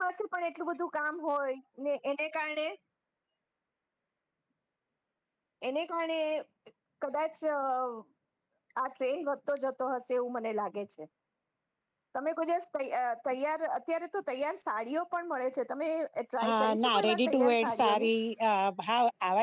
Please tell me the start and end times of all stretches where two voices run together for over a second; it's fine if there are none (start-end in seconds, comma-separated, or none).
16.4-18.1